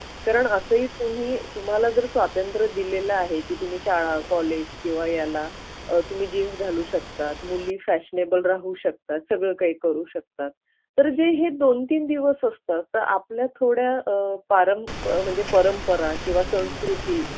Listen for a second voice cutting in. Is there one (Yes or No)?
No